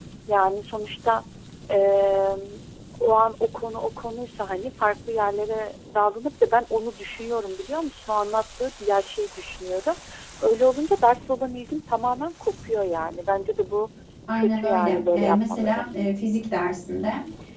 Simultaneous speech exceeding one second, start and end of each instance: 14.3-15.9

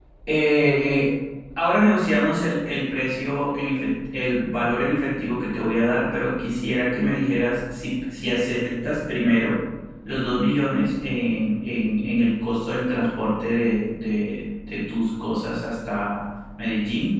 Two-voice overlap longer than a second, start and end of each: none

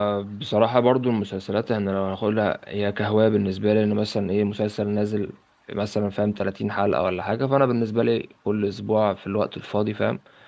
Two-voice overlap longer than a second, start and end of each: none

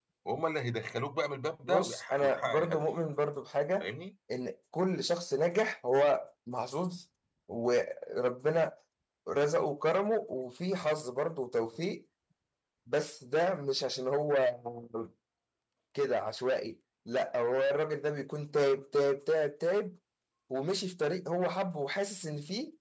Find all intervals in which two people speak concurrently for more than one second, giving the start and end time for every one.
1.6-2.9

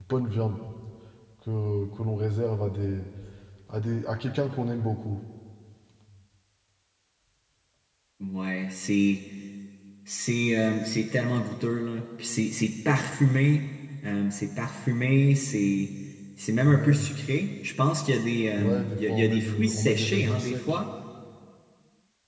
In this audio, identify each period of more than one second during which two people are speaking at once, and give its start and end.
18.6-20.8

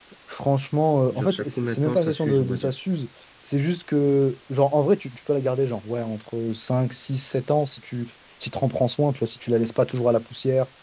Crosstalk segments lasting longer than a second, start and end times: 1.1-2.7

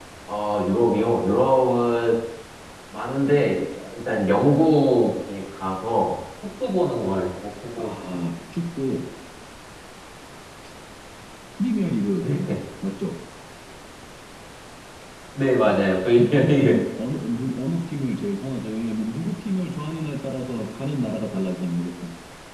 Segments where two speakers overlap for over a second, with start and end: none

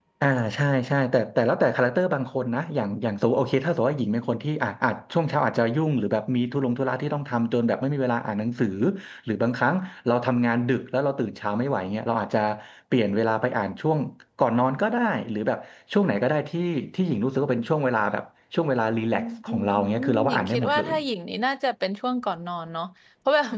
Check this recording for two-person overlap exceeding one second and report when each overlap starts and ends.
19.1-20.9

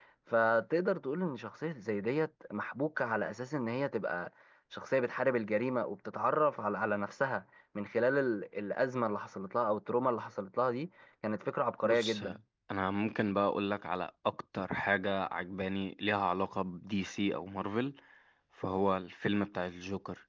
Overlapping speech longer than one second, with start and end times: none

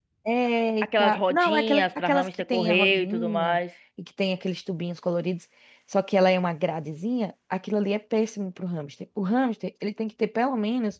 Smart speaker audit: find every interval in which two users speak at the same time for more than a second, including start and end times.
1.0-3.6

